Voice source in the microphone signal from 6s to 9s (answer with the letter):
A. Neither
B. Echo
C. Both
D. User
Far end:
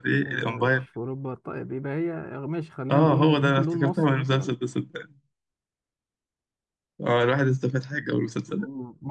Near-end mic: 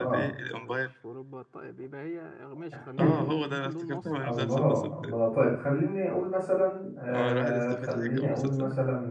C